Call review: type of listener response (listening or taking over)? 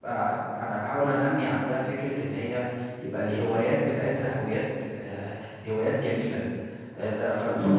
listening